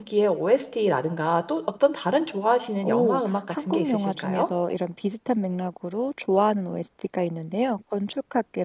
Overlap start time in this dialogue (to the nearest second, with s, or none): 3 s